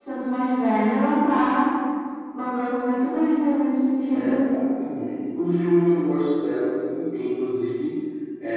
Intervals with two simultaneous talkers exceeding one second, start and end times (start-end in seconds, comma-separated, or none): none